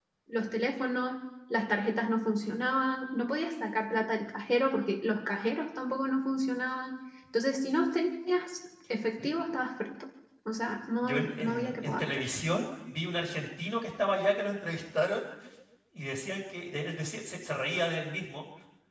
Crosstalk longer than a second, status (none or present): present